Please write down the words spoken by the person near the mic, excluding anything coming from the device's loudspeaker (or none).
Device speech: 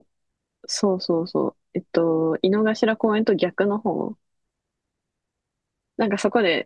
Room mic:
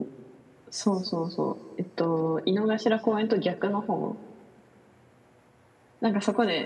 none